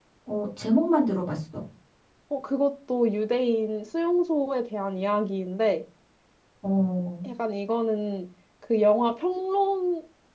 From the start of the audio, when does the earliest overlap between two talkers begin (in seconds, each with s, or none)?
none